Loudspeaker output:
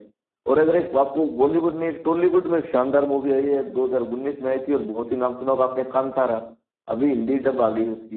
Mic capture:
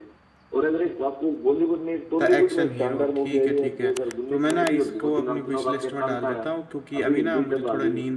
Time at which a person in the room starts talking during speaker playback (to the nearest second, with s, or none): 2 s